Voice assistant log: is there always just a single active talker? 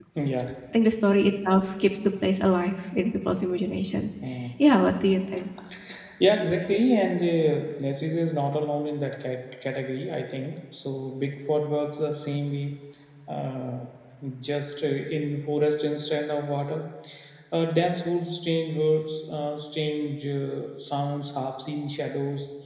Yes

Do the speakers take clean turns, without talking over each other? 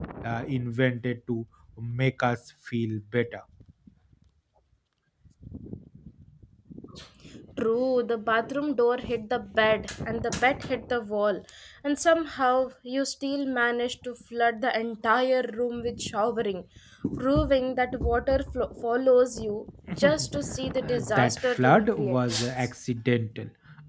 No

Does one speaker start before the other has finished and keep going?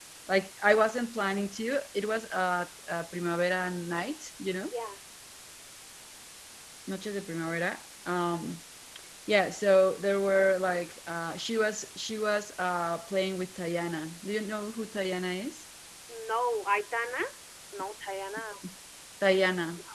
No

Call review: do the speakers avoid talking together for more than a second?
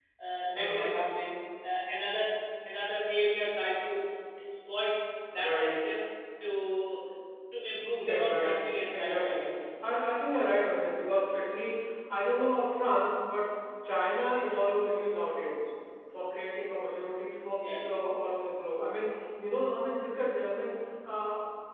No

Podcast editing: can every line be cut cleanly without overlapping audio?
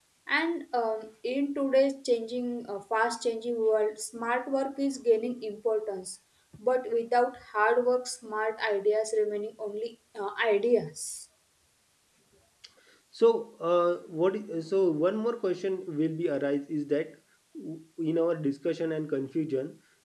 Yes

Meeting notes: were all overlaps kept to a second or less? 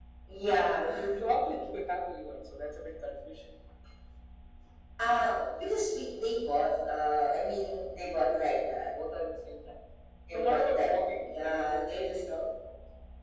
No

